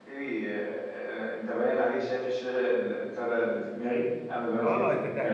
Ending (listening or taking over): taking over